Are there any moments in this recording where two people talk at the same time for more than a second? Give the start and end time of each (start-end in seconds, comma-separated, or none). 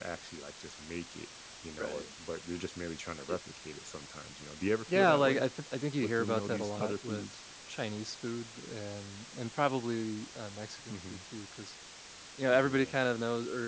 6.0-7.3